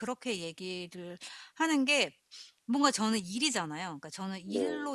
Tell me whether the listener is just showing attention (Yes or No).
Yes